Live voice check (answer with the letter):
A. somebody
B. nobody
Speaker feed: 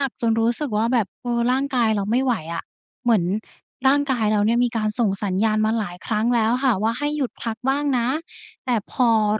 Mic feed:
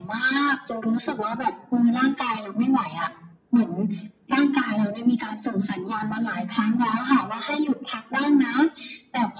B